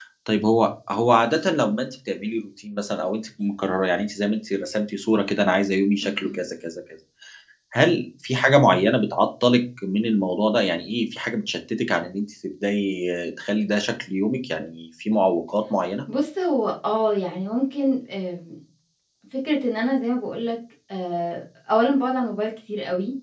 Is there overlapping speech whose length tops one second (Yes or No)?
No